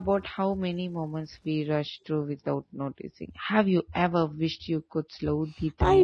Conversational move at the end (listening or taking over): taking over